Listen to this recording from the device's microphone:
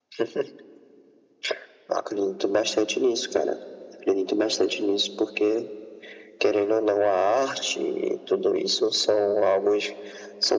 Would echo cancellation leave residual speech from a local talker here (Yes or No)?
No